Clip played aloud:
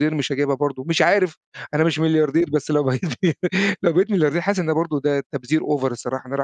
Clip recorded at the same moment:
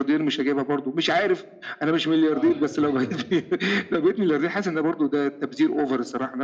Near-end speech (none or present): present